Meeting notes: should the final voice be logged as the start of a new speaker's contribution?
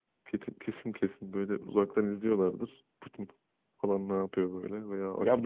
Yes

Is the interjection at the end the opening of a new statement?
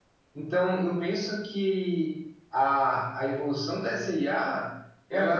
No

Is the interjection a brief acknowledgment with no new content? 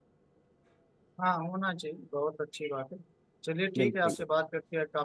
Yes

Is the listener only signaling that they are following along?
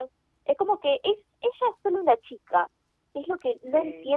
Yes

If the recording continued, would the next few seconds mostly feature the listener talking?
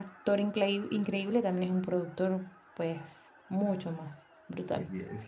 Yes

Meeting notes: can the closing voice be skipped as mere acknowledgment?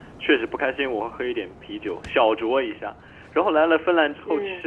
Yes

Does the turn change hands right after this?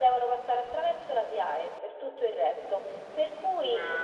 No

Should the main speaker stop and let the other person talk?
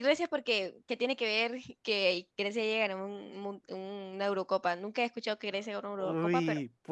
Yes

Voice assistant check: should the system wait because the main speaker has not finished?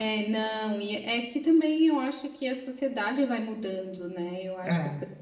Yes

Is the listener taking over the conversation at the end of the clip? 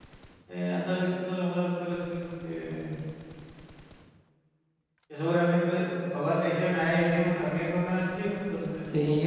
Yes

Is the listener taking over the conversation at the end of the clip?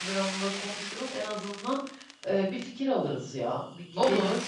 No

